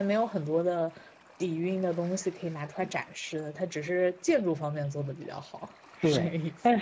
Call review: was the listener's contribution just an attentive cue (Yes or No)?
No